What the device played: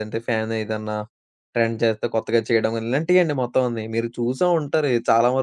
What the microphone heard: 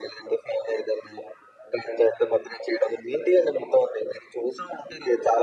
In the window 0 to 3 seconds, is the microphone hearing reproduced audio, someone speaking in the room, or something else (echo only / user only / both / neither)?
echo only